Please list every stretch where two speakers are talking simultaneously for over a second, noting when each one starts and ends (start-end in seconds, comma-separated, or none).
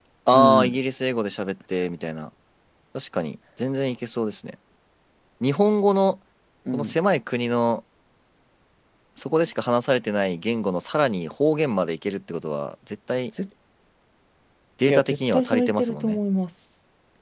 14.9-16.2